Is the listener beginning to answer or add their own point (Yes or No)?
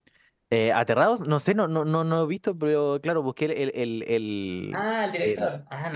Yes